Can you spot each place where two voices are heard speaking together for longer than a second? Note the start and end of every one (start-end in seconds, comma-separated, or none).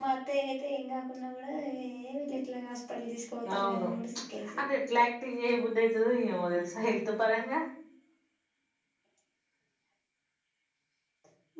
none